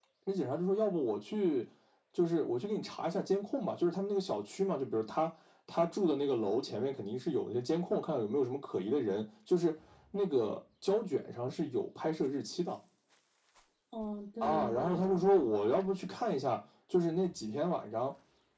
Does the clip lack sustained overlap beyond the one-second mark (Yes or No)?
No